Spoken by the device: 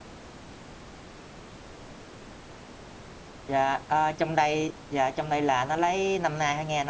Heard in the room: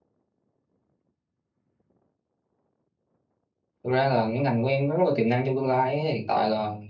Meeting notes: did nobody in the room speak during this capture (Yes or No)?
No